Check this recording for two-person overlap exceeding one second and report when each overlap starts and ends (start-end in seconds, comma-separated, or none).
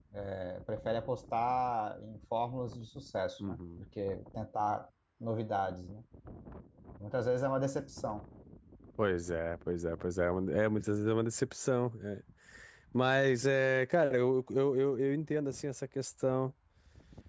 none